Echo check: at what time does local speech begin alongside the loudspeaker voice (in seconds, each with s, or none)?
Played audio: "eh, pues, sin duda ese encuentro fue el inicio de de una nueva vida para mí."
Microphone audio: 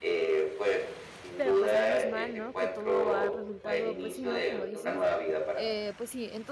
1.4 s